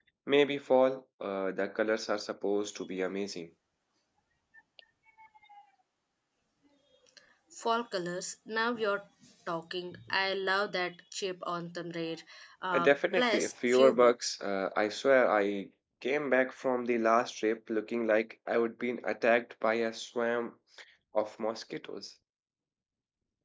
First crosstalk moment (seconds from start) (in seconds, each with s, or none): 12.7 s